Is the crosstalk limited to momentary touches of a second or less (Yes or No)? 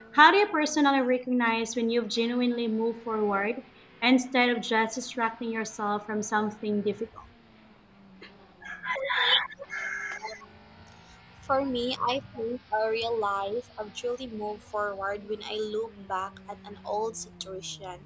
Yes